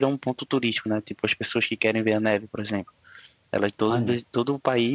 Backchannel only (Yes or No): Yes